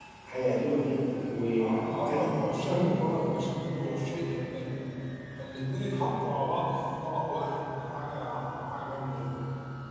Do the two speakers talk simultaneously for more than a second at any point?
Yes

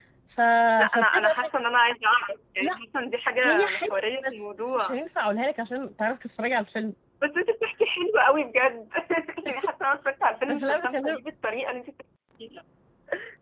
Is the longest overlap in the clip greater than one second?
Yes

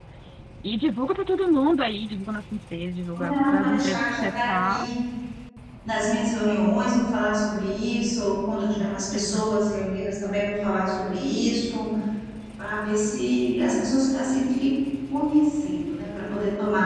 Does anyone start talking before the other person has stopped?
Yes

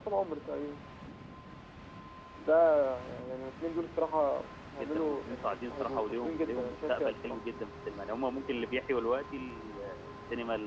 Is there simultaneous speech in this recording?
Yes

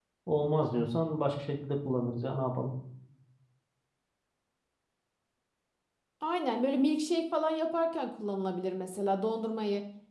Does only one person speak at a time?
Yes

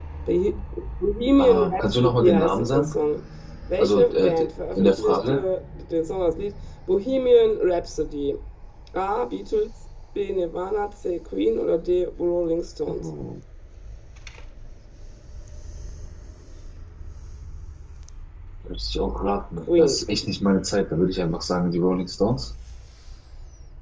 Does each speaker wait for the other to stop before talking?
No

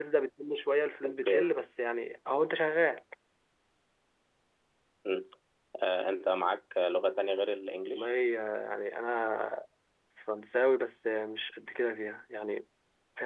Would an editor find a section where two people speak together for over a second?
No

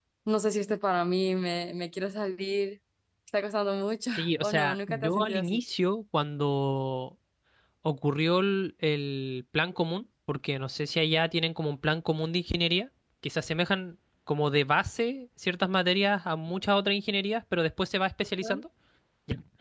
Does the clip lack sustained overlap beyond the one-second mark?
No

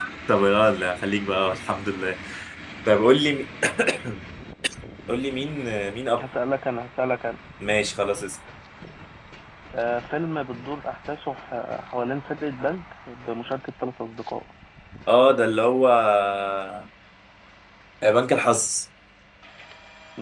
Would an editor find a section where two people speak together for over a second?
No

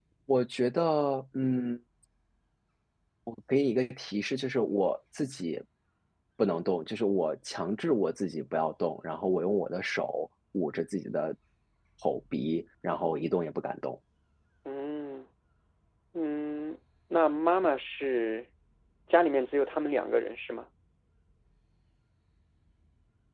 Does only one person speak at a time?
Yes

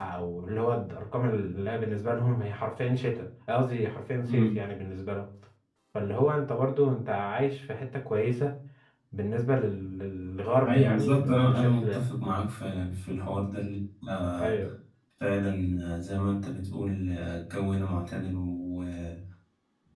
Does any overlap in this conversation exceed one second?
Yes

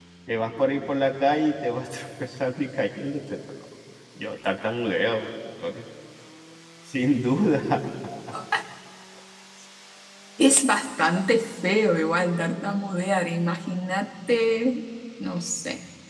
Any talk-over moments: No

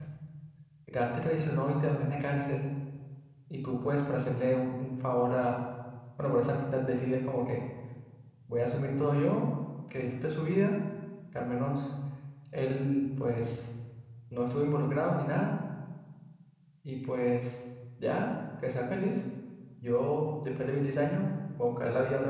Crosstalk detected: No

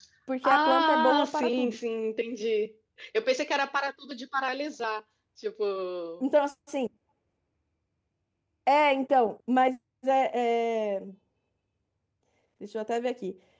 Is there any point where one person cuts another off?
Yes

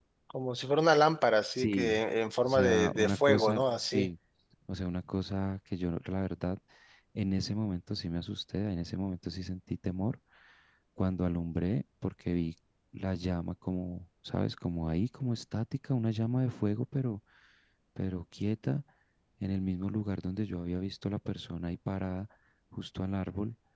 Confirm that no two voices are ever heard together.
No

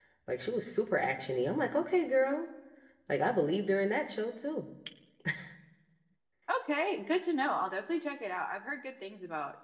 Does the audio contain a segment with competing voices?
No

